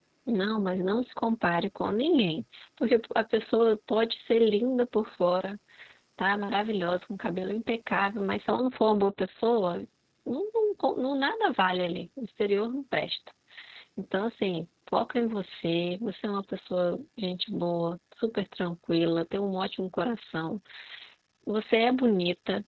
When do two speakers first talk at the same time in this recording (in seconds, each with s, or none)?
none